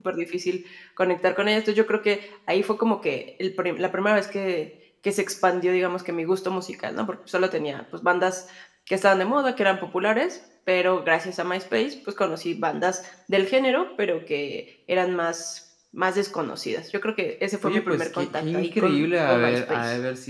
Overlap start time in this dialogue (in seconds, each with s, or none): 17.6 s